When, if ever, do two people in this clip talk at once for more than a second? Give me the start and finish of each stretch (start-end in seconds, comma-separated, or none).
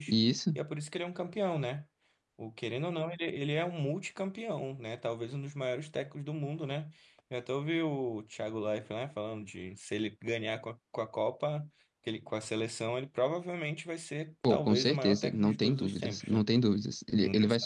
14.5-16.5